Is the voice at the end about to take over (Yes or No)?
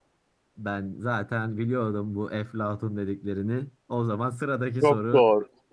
Yes